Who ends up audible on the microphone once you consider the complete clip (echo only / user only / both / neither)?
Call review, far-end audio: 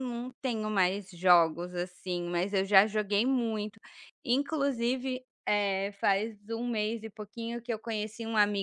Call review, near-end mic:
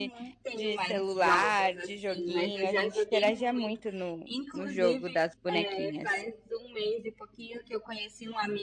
both